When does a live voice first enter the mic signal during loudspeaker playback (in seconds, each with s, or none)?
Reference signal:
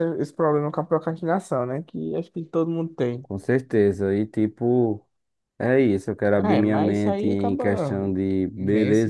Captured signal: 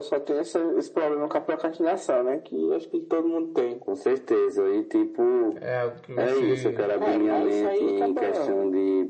5.6 s